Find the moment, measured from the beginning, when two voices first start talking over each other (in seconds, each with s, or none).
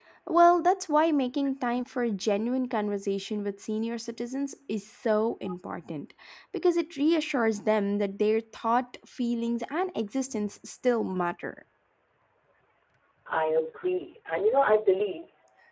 none